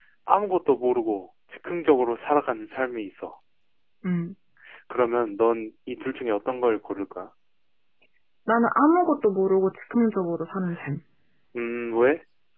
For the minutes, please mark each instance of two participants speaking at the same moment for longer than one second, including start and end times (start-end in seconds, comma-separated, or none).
none